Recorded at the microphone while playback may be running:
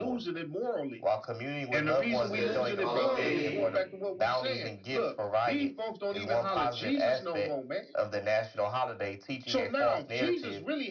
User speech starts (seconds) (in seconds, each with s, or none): 2.1 s